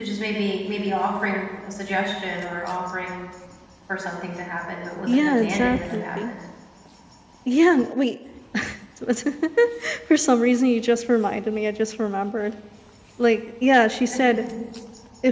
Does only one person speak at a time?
No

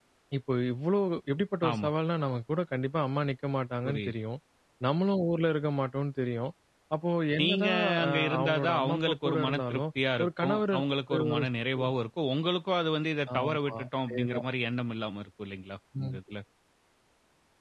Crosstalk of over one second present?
Yes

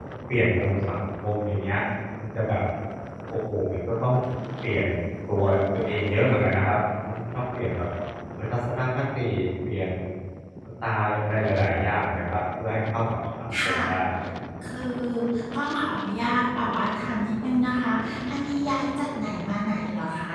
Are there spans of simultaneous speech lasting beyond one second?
No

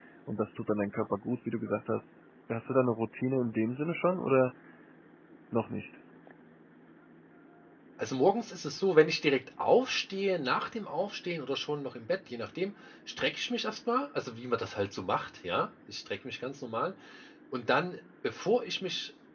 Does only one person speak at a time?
Yes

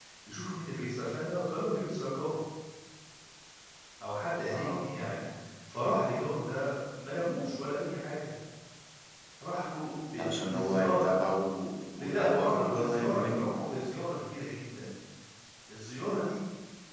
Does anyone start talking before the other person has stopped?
Yes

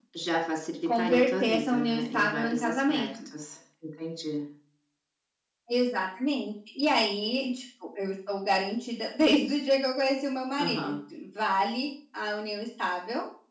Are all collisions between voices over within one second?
No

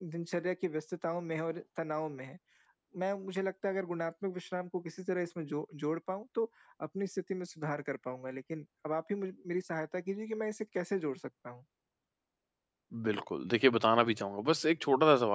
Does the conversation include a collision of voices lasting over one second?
No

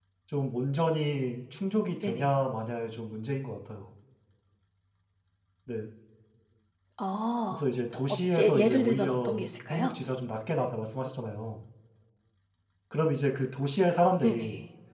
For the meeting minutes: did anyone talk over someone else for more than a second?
Yes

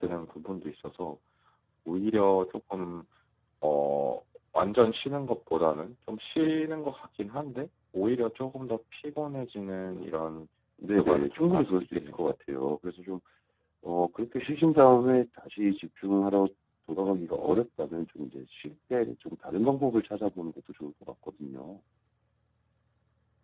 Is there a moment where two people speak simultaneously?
Yes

